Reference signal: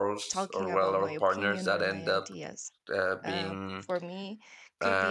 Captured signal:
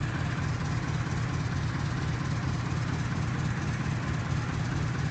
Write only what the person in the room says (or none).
none